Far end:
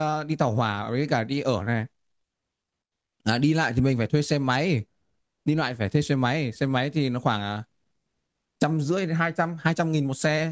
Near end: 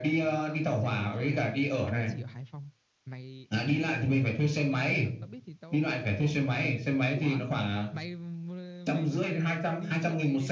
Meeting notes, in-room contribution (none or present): present